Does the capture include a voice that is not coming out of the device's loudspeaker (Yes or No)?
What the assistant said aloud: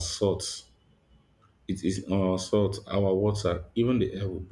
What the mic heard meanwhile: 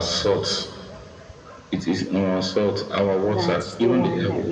Yes